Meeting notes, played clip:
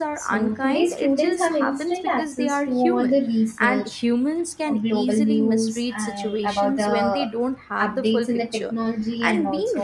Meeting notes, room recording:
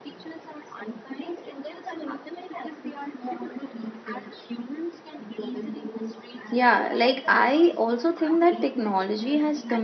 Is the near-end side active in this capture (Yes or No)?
Yes